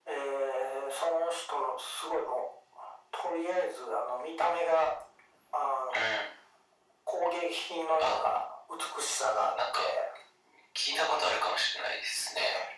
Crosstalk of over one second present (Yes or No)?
No